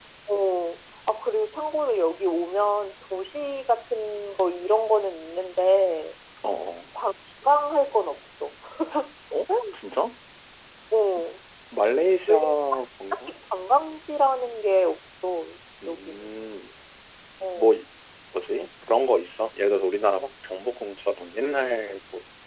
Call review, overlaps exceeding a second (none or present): none